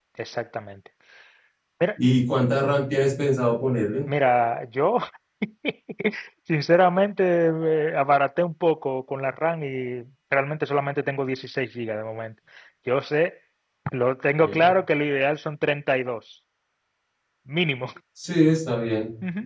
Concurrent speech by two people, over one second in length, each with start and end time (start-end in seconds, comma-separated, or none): none